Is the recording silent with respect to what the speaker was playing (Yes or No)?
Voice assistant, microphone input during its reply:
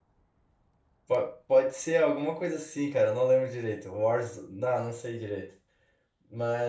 Yes